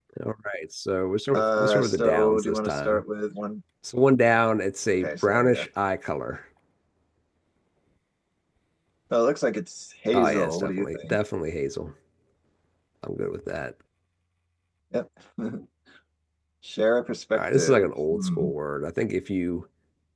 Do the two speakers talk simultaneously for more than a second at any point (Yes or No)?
Yes